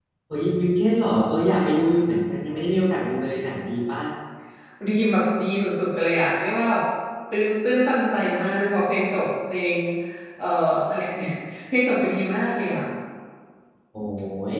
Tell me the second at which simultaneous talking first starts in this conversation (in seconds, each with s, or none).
none